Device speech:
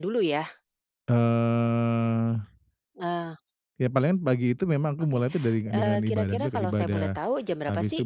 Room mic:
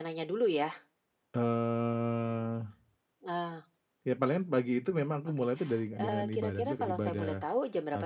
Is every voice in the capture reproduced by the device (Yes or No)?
Yes